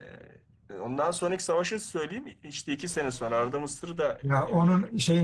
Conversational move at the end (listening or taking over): taking over